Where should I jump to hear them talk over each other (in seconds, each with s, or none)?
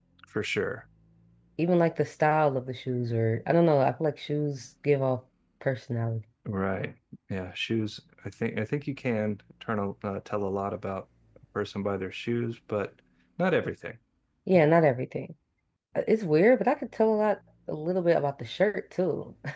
none